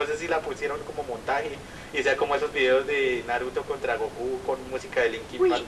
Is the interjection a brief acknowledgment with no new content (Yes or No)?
No